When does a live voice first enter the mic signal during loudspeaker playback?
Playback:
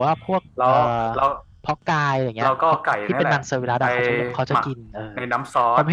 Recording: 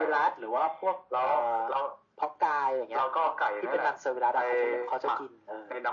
none

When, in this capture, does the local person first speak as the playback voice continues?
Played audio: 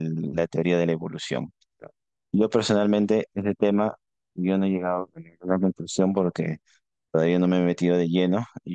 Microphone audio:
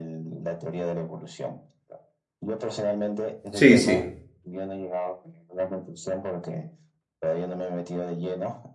3.5 s

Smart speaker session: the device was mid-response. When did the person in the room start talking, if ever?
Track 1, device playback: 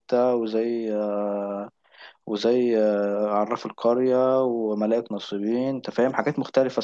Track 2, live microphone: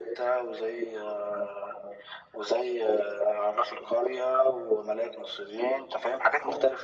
none

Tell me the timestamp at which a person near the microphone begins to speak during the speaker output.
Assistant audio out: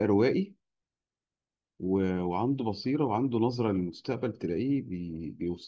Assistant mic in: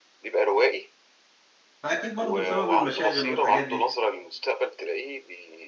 1.8 s

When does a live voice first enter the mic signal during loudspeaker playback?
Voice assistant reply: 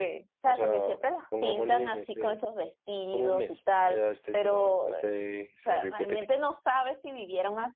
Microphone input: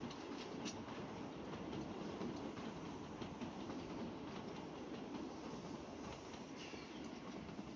none

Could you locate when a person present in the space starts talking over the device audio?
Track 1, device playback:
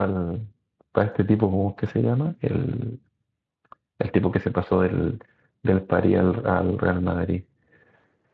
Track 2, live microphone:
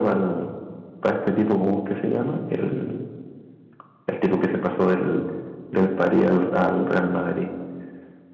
none

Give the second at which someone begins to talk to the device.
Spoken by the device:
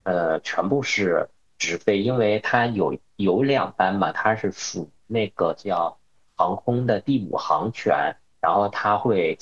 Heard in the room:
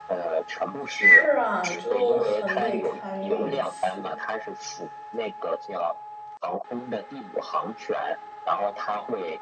0.9 s

